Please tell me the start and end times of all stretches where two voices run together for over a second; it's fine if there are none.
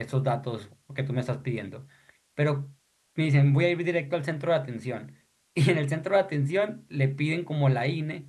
none

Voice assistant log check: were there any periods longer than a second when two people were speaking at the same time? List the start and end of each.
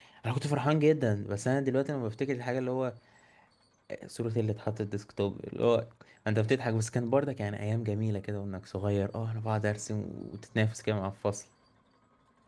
none

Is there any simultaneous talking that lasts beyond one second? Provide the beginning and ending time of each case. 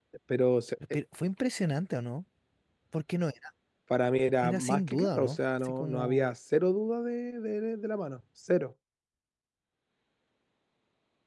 4.4-6.3

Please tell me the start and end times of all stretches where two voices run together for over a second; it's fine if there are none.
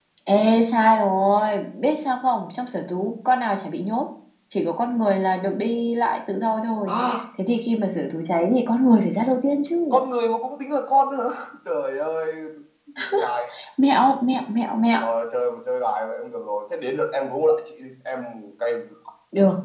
none

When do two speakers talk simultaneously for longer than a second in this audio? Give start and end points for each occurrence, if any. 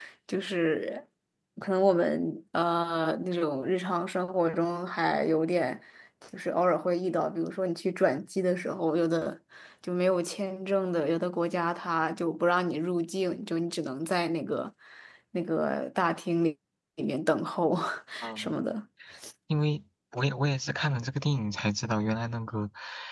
none

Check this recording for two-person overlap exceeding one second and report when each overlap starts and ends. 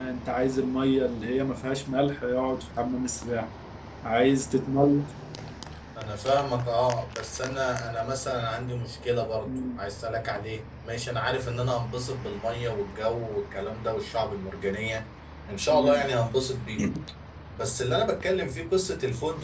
none

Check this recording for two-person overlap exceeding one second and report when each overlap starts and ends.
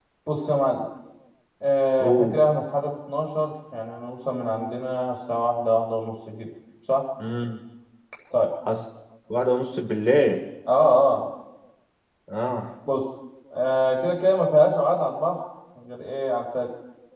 none

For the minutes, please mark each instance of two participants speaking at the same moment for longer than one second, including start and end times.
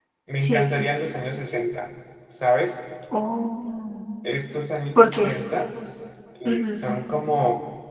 none

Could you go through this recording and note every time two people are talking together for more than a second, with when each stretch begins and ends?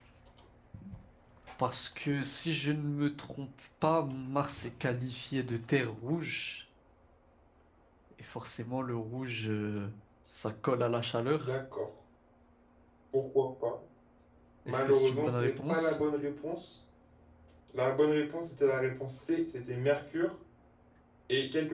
14.7-16.0

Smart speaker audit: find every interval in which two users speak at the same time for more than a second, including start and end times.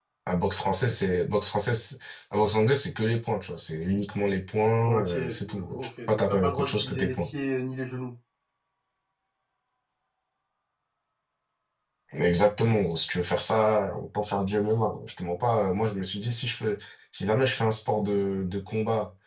5.0-7.3

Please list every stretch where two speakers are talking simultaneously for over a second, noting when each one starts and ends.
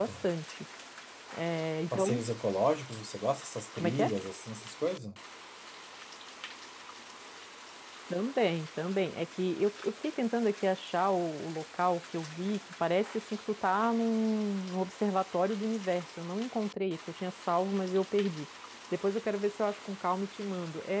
none

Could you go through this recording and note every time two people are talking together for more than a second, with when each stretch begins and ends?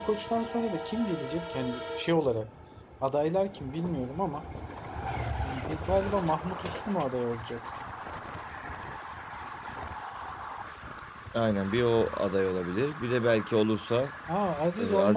none

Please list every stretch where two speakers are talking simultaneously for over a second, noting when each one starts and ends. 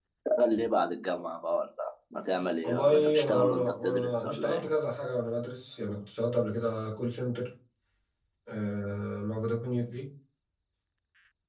2.6-4.6

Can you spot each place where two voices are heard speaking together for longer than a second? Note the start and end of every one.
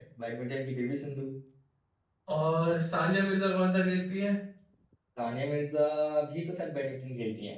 none

